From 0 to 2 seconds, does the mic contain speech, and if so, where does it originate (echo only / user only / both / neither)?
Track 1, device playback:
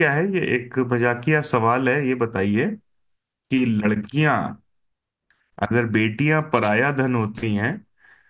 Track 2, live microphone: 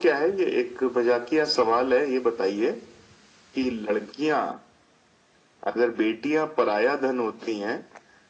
echo only